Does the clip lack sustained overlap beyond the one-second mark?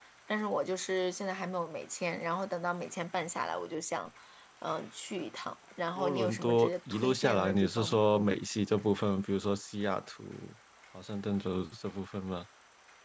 No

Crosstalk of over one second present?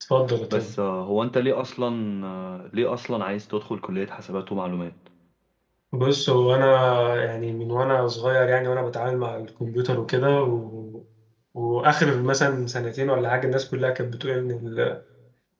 No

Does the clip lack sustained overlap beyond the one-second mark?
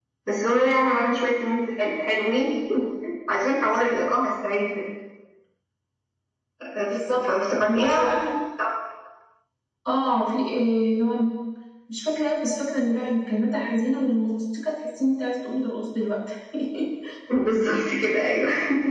Yes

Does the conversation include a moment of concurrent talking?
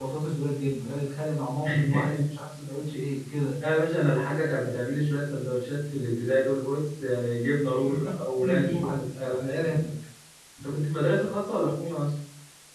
Yes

